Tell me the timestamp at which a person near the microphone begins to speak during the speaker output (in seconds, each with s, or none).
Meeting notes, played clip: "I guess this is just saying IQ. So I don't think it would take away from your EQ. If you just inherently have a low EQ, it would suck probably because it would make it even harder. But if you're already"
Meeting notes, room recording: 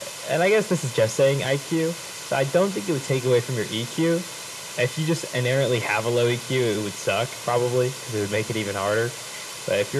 none